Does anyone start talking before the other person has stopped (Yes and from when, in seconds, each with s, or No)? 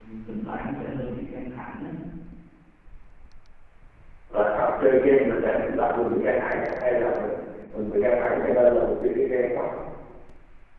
No